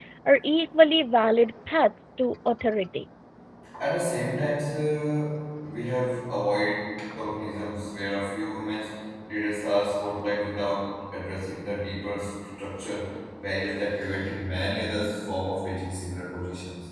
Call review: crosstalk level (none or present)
none